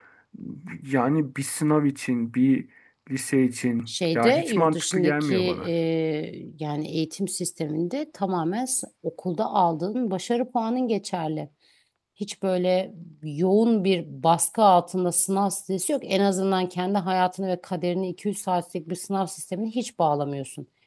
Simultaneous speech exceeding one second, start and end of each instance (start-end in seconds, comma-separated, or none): 3.9-5.7